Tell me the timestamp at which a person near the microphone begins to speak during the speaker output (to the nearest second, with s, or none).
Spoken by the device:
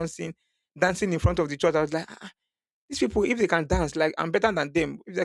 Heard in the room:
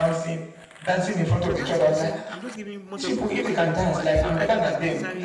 1 s